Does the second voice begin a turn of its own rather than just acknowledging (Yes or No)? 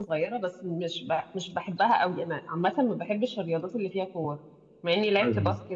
No